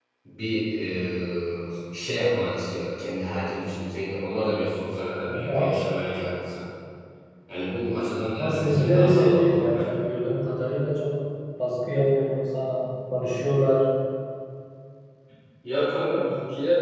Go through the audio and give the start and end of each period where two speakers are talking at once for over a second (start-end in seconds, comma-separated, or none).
8.4-9.9